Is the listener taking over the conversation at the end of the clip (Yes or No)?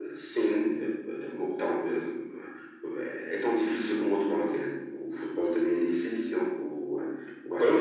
No